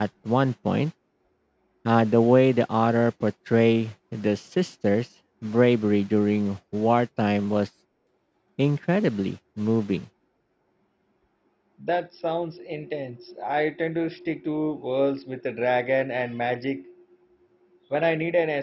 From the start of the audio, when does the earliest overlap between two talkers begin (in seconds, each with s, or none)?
none